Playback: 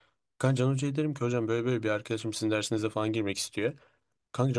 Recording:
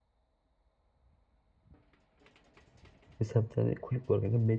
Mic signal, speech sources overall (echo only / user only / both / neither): user only